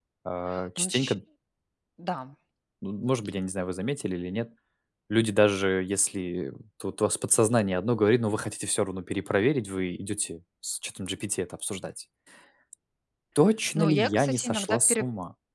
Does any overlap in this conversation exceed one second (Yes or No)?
Yes